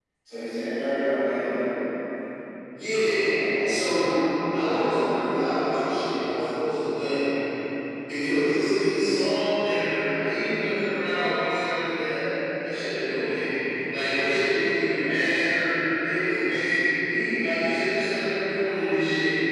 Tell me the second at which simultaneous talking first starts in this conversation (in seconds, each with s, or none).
none